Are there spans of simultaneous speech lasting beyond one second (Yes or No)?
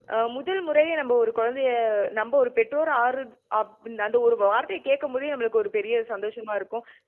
No